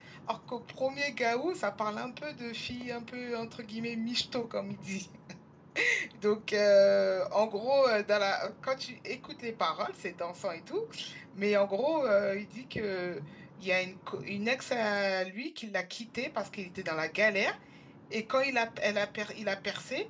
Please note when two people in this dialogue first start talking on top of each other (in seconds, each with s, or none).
none